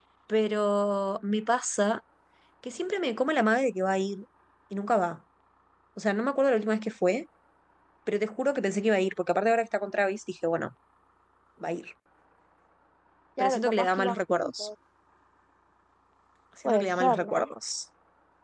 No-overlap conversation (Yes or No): No